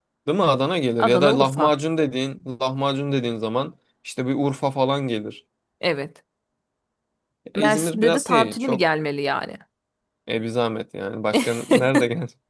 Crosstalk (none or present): present